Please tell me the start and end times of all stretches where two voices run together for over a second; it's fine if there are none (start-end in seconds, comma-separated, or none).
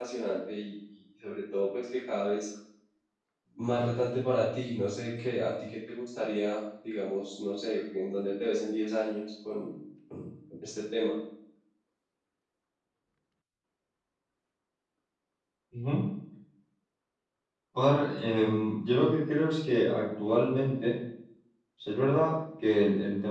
none